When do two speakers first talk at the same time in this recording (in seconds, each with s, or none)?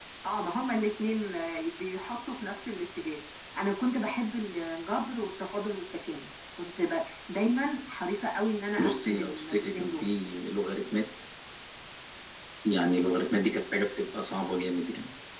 8.8 s